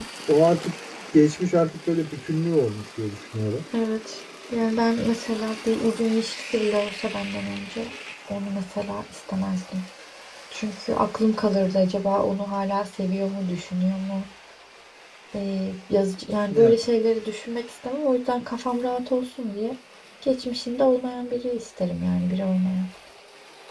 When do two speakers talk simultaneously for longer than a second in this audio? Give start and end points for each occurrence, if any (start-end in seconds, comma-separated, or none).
none